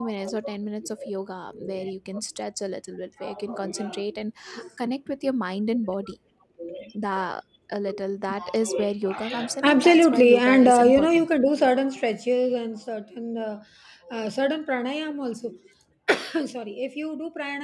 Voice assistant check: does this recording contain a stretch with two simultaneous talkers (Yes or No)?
Yes